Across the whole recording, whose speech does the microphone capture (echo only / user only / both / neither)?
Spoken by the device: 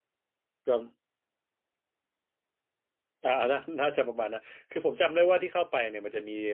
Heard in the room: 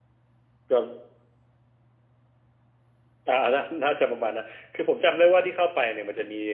echo only